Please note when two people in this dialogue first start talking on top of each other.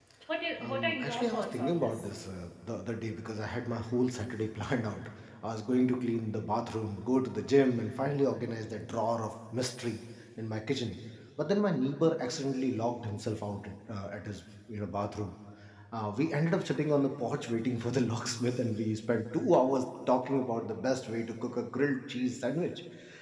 0.6 s

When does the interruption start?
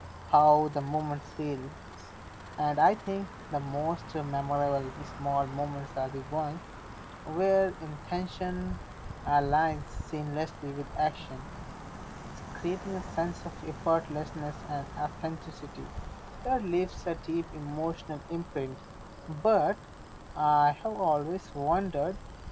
none

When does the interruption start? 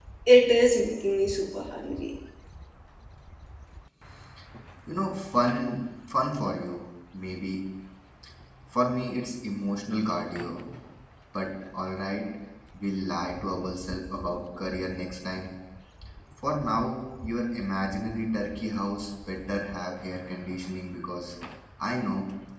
none

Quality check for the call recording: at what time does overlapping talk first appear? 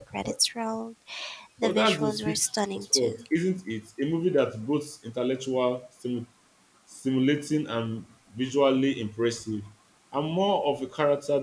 1.6 s

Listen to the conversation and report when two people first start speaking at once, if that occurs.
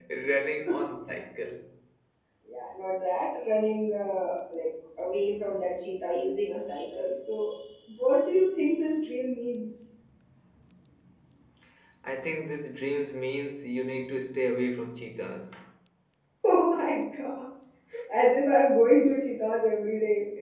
none

